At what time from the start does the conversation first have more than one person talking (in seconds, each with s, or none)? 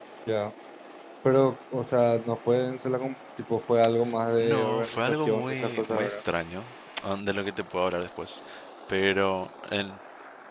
4.4 s